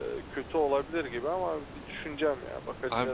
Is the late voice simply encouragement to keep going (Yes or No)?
No